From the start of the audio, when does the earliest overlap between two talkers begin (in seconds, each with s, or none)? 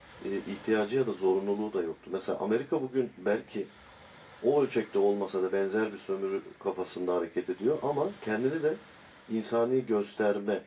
none